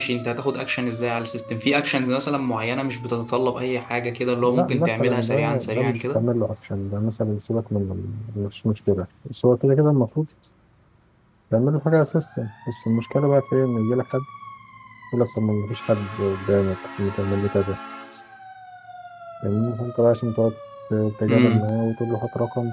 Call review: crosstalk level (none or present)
present